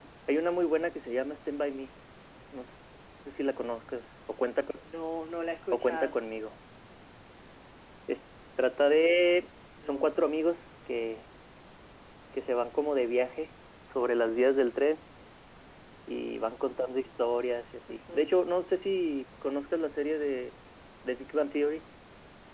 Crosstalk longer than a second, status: none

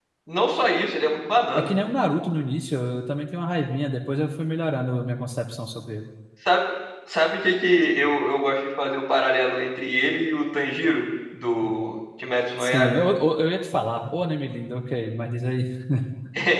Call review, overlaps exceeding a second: none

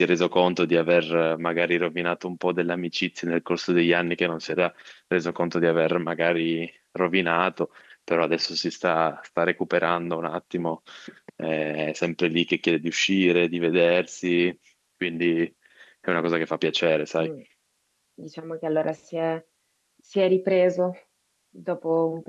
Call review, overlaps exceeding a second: none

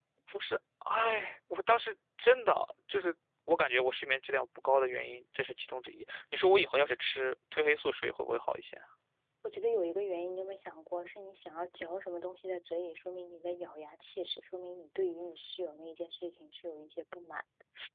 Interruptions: none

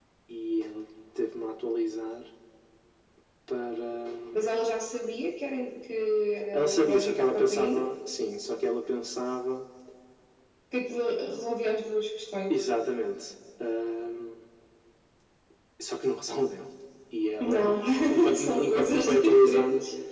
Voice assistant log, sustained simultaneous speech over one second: present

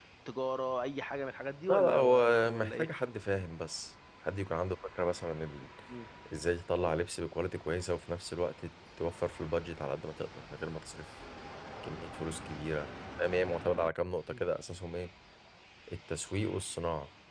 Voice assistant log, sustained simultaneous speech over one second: present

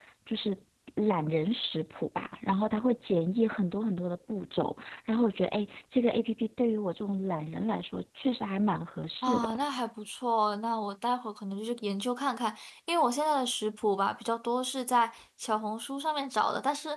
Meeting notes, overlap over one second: none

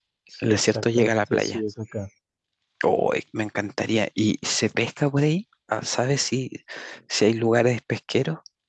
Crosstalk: present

